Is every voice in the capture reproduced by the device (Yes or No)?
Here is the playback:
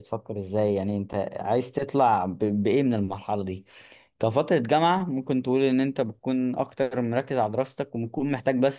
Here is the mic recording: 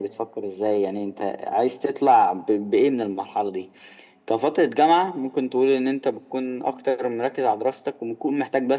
Yes